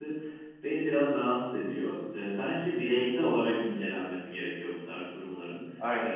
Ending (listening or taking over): listening